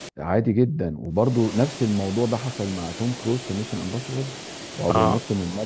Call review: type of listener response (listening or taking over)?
listening